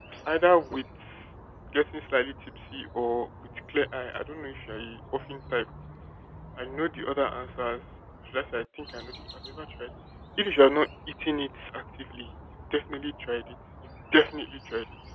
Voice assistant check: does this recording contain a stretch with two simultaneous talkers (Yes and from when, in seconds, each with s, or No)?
No